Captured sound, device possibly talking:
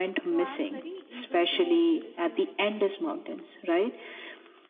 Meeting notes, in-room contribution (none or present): present